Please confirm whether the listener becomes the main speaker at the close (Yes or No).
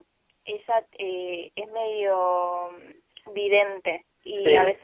No